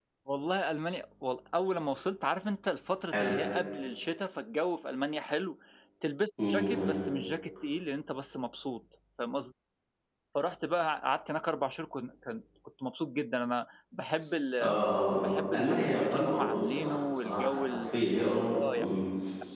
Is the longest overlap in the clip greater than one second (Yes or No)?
Yes